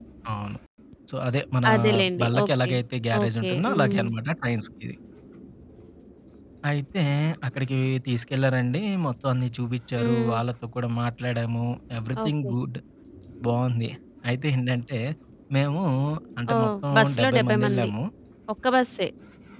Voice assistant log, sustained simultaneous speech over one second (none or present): present